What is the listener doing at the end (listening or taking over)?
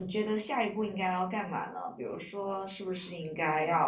listening